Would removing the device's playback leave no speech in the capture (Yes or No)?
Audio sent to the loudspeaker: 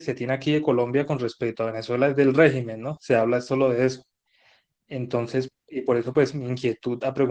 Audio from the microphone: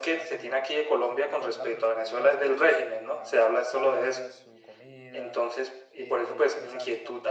No